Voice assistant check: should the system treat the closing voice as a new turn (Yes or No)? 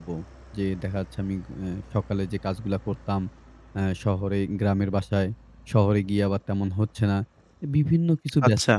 No